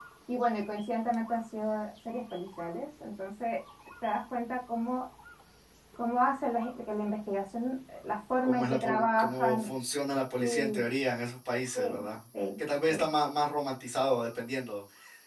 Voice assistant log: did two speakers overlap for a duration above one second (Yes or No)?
Yes